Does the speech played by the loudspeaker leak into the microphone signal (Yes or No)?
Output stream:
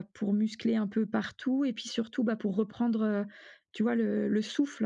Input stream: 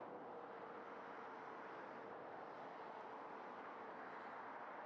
No